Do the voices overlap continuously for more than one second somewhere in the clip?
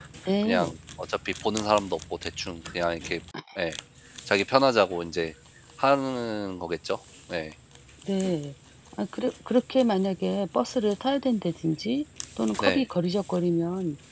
No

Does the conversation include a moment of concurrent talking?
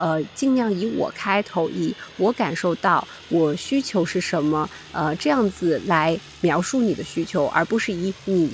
No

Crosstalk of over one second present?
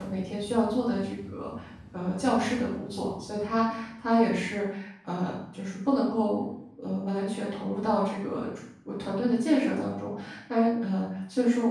No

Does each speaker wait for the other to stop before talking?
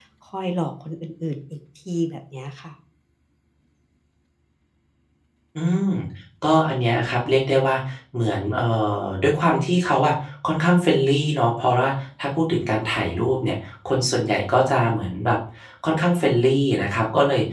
Yes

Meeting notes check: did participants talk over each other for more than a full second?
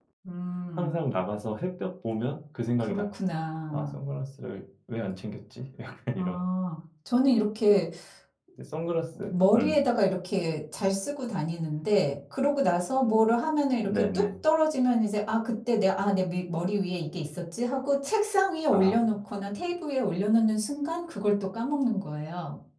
No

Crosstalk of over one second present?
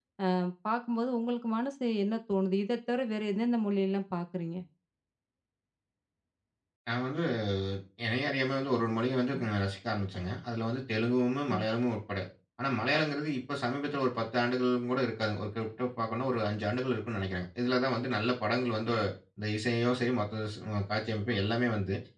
No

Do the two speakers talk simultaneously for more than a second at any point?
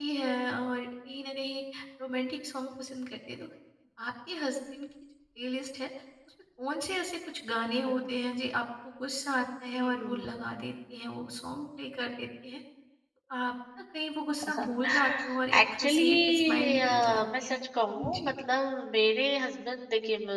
Yes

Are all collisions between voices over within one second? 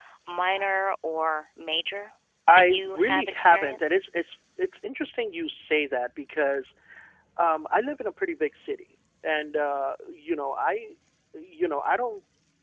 No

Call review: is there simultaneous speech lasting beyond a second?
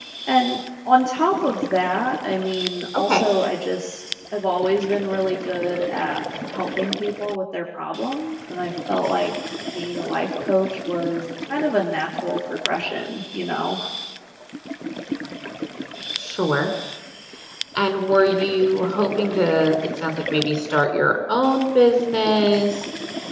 No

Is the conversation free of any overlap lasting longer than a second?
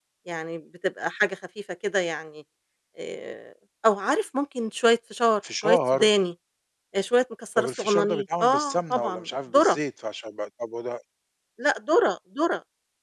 No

